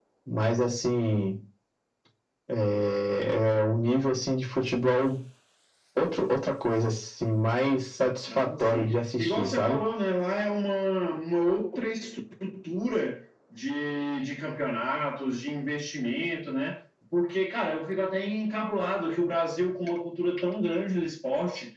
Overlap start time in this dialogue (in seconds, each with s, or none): 8.3 s